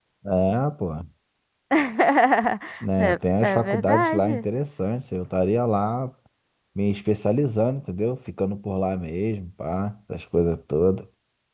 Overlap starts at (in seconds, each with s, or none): 3.0 s